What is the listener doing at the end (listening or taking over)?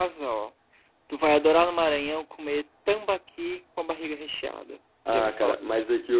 taking over